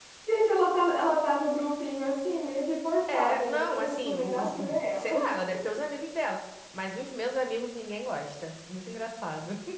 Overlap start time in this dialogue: 3.1 s

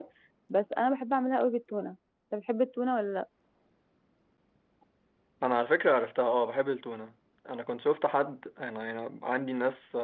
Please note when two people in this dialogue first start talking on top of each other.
none

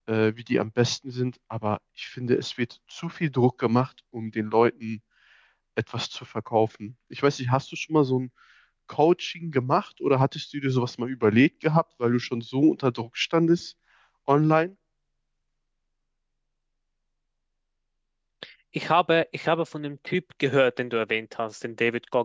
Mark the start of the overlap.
none

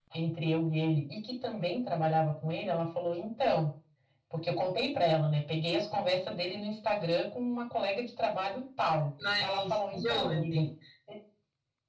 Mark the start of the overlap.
9.2 s

